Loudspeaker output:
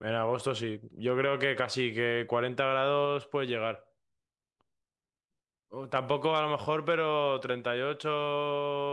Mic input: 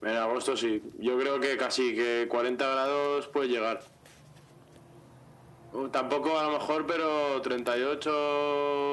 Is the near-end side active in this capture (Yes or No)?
No